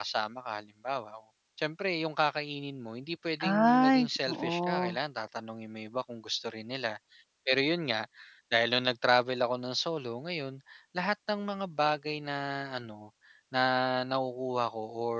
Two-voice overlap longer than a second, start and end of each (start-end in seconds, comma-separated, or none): 3.4-5.0